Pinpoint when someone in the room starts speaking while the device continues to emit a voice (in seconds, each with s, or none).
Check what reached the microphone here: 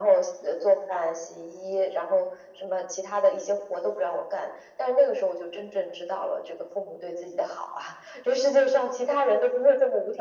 none